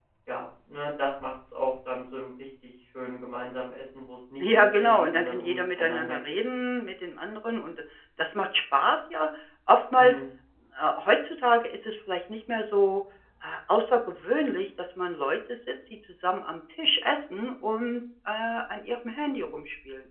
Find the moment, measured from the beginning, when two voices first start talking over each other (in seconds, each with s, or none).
4.4 s